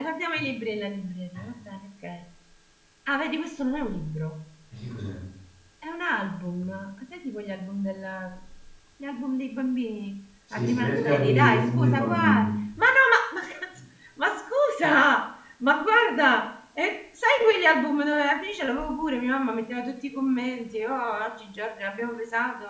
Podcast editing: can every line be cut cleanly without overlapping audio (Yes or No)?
No